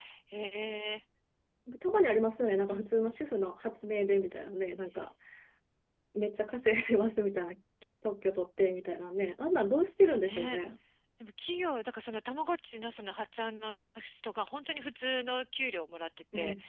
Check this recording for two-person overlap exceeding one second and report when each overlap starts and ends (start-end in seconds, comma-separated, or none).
none